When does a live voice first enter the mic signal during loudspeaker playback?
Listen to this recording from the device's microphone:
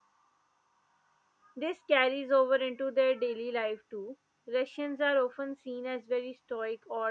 2 s

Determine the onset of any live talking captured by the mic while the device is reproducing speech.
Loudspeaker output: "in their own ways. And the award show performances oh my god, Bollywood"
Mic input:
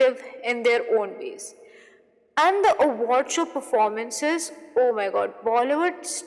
none

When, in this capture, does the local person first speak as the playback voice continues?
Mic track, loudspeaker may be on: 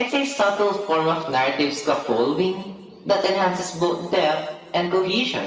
none

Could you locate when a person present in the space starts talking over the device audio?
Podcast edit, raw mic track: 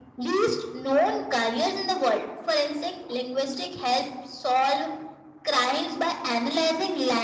none

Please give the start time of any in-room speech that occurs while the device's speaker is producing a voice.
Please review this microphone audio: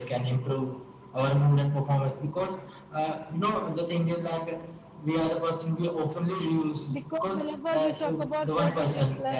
7 s

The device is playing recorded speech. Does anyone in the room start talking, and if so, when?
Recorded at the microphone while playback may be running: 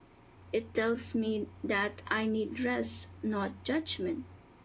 1 s

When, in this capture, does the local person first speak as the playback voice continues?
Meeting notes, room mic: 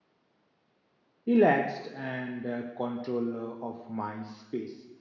1 s

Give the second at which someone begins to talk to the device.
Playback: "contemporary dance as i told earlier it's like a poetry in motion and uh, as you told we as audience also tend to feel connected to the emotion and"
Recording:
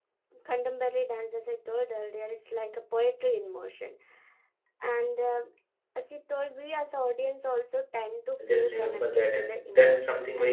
8 s

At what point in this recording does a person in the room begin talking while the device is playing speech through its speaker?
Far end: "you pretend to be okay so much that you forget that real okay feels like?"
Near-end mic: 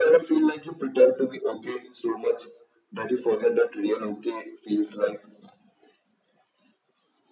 none

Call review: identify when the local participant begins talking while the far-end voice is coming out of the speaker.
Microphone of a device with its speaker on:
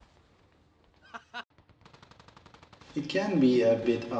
3 s

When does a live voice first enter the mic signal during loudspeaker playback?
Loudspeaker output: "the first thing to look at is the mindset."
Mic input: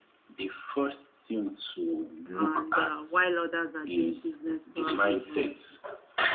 2 s

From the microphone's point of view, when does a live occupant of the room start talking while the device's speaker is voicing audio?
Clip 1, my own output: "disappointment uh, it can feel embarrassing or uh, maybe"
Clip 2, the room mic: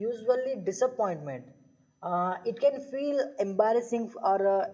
none

